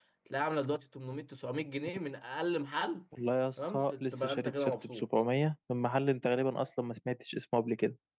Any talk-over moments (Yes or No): Yes